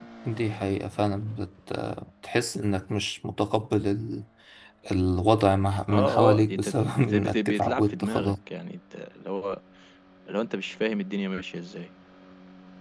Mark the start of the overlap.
5.9 s

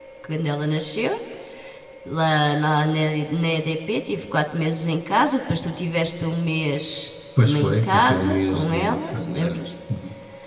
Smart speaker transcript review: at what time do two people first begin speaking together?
7.4 s

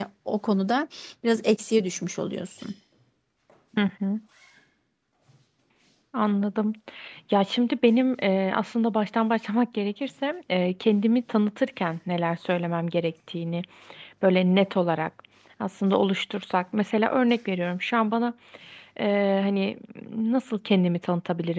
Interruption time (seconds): none

